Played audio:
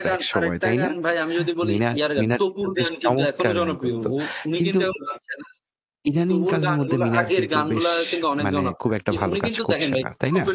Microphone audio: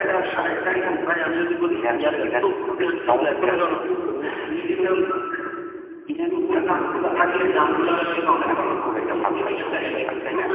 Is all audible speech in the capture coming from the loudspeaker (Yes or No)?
Yes